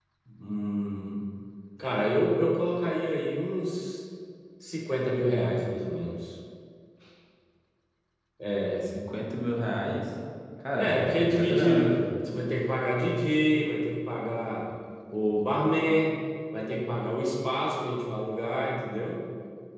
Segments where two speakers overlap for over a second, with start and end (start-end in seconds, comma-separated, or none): 10.8-11.9